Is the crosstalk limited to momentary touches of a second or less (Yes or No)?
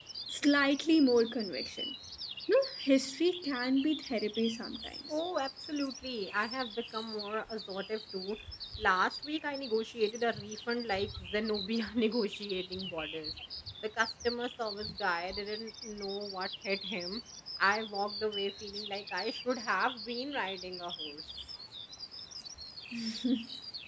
Yes